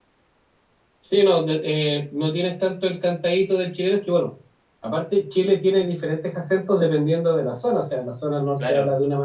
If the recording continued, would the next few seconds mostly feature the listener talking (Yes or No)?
No